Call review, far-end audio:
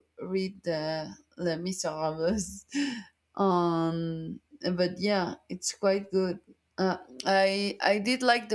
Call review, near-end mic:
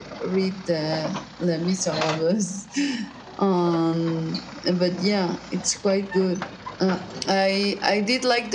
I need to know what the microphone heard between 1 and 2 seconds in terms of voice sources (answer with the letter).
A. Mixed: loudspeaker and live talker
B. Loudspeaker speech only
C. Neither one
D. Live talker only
B